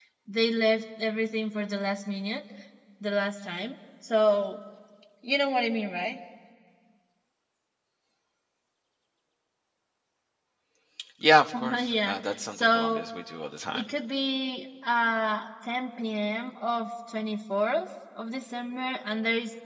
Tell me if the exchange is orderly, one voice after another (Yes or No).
No